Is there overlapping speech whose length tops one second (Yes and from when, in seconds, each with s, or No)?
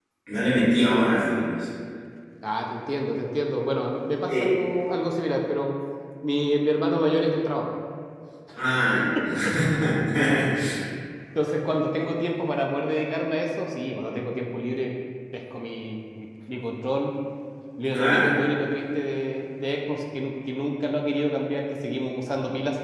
No